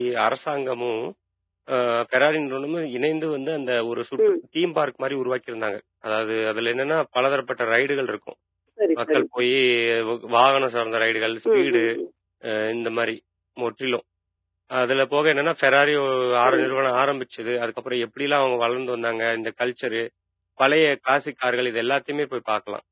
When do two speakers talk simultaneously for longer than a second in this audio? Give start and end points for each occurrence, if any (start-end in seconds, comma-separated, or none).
none